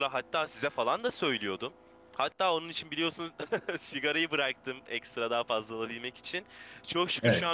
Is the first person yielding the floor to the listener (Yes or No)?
No